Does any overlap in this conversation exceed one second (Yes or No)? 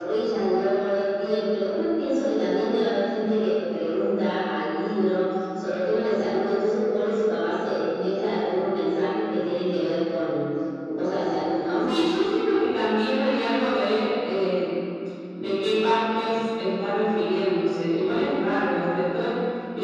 No